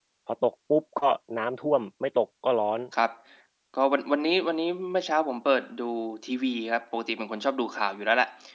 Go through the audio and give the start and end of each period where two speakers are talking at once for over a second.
none

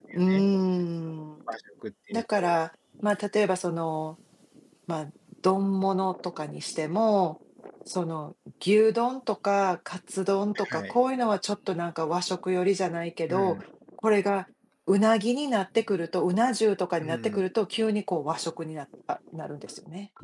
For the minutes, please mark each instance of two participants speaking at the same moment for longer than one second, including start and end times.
none

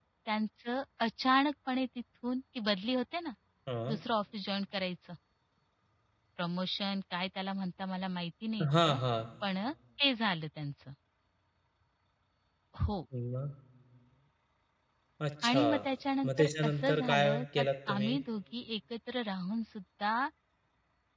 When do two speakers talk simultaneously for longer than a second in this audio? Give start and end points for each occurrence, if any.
16.2-18.2

